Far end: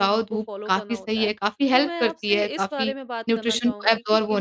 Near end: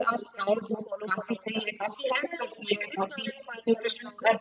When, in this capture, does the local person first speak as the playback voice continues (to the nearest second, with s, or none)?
none